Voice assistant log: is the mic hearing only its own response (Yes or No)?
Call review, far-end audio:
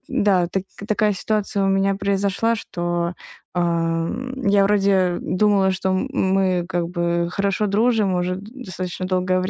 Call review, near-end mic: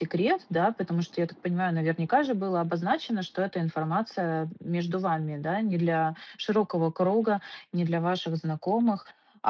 No